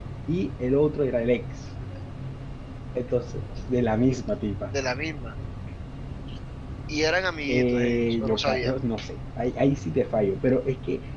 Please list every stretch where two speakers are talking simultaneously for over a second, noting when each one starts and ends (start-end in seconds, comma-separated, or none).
7.5-8.7